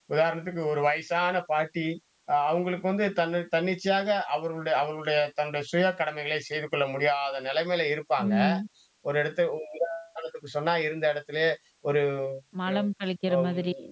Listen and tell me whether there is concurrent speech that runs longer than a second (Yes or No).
No